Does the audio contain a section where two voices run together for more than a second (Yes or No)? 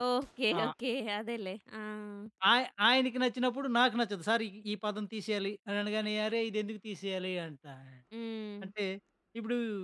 No